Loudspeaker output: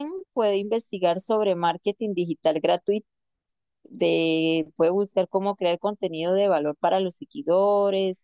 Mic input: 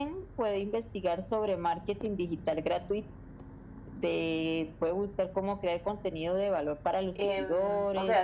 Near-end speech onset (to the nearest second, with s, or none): 7 s